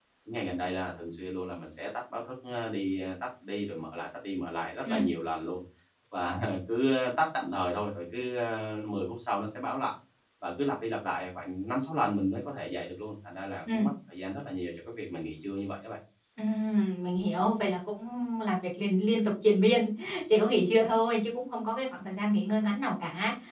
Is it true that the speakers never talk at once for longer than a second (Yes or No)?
Yes